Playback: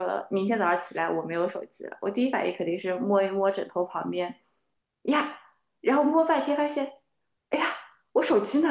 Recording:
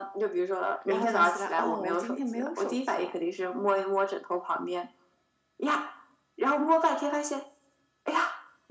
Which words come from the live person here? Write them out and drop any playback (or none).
然后想起来，哦，我今天没有手机了。